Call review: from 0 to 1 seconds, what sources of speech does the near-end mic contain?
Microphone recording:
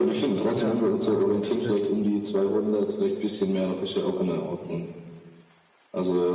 both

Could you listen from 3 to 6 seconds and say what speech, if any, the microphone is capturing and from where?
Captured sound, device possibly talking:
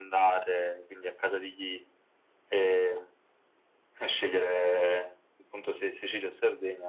echo only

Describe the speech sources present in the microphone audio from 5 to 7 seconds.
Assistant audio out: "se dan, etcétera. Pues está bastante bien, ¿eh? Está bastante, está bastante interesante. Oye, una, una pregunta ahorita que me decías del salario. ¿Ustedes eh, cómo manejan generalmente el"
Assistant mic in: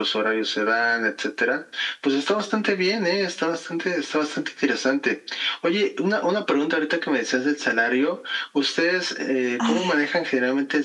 echo only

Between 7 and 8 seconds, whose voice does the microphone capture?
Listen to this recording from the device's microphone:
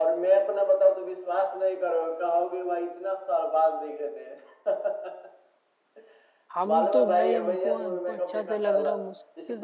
both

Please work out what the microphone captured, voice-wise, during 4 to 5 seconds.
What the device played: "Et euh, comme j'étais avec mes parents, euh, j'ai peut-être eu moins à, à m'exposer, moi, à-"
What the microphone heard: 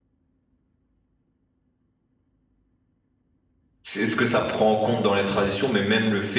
user only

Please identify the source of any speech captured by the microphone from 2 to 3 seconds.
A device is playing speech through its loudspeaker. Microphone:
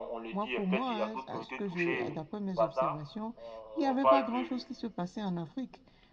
both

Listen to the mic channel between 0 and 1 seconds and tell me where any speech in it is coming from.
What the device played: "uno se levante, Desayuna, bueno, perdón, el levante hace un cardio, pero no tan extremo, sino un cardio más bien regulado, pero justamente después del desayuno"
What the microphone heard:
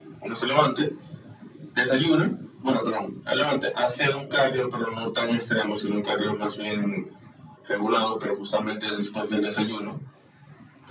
echo only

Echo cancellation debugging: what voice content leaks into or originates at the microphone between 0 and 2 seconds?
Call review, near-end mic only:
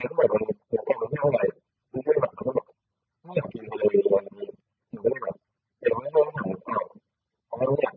echo only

